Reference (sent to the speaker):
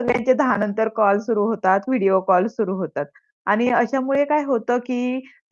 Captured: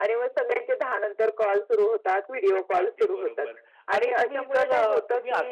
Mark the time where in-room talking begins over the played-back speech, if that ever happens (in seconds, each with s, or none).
2.8 s